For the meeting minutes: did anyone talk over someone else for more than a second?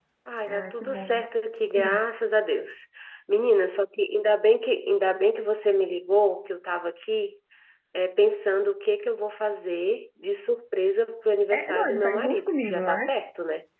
Yes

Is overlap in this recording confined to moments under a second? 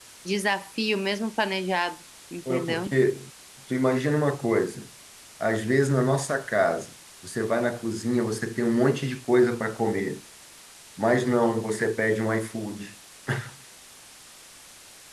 Yes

